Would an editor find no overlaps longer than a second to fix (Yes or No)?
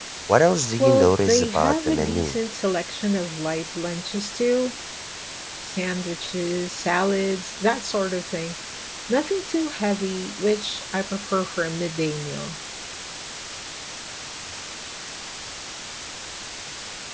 No